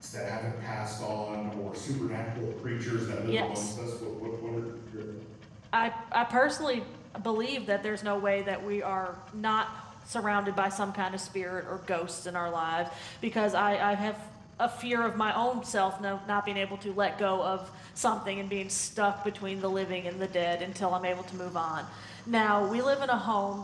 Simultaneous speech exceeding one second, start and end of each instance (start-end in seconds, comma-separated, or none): none